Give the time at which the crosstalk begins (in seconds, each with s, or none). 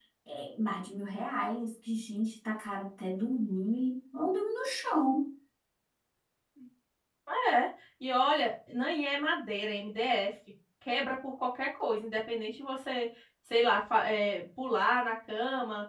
none